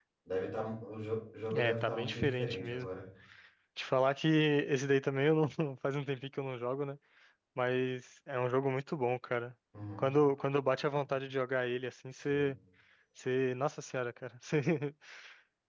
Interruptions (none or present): present